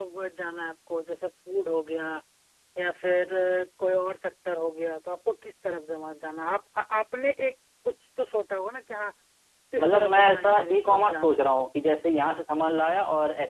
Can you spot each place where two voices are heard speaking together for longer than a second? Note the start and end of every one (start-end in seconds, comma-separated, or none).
9.8-11.4